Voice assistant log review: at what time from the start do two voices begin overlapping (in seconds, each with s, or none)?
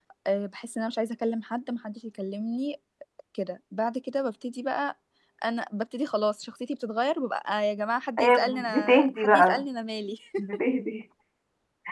8.2 s